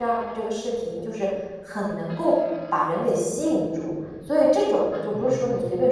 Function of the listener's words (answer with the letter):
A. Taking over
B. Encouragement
B